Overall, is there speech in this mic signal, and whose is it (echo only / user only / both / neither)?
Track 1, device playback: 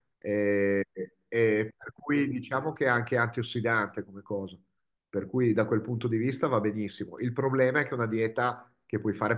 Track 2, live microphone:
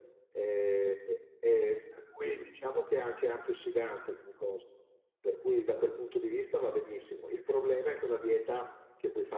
echo only